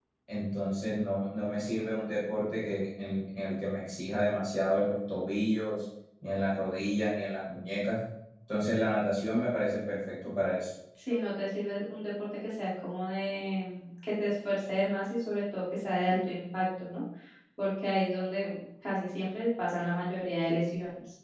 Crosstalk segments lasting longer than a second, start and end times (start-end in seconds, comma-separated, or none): none